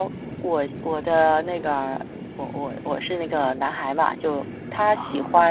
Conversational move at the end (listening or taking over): listening